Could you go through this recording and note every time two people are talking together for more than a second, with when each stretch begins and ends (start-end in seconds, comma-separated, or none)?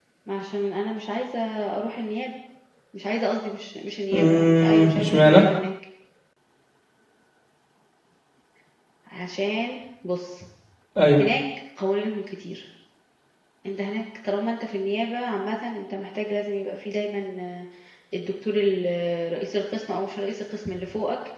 4.1-5.4